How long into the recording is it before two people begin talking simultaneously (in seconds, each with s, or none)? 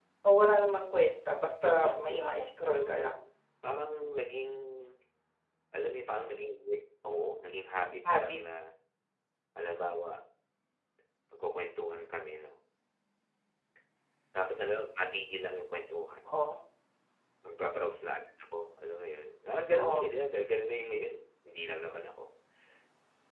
1.6 s